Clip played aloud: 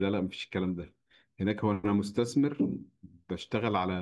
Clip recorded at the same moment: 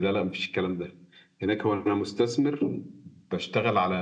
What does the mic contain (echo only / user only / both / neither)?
echo only